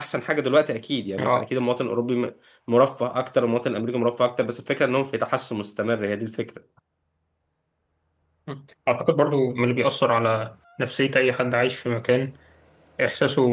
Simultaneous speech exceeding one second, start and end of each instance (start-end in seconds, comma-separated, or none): none